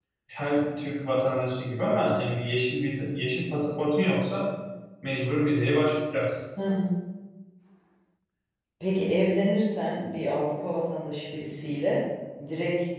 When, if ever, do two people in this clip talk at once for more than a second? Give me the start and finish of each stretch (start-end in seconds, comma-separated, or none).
none